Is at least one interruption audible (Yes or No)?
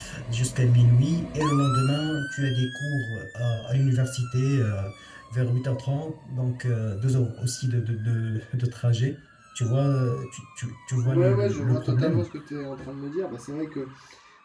Yes